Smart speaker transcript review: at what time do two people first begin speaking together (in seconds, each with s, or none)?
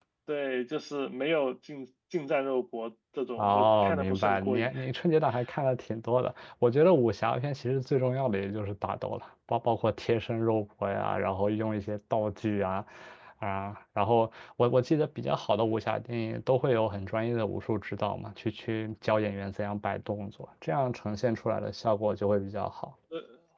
3.4 s